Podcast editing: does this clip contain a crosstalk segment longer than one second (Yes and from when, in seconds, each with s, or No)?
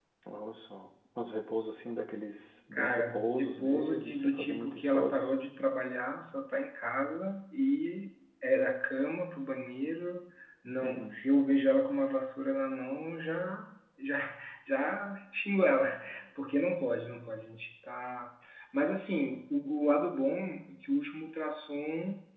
Yes, from 2.7 s